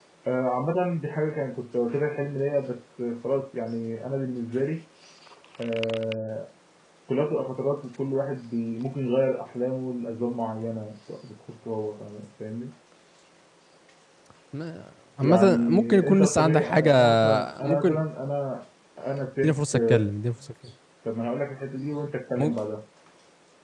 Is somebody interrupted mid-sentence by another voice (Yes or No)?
Yes